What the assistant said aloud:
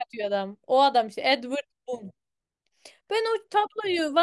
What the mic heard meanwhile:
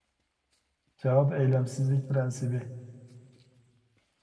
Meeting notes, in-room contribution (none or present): present